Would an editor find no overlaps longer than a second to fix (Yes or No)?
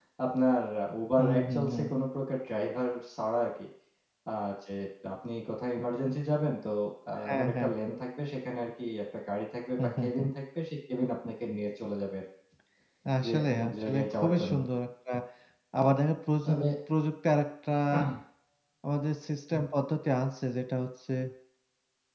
No